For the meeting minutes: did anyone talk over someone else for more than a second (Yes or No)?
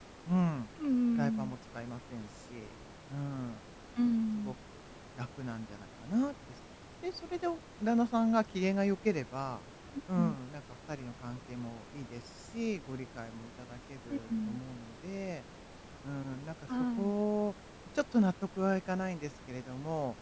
No